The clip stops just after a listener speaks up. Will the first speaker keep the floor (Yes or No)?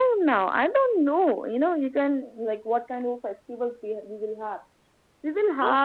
Yes